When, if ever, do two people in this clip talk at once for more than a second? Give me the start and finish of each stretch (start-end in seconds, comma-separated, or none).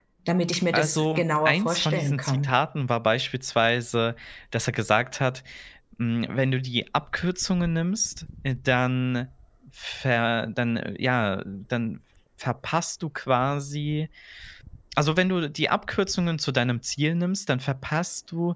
0.7-2.5